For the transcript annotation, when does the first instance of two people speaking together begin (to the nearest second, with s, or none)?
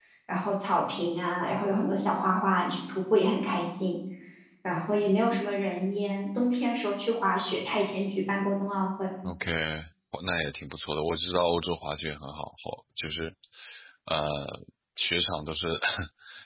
none